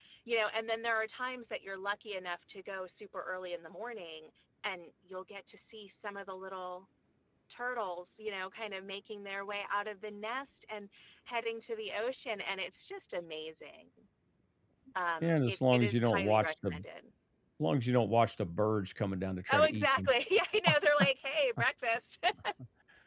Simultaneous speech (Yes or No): Yes